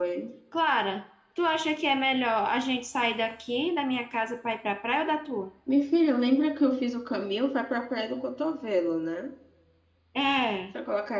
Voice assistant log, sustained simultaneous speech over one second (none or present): none